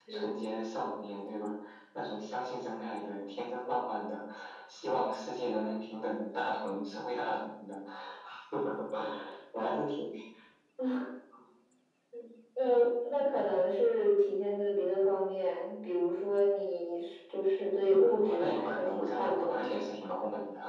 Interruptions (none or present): present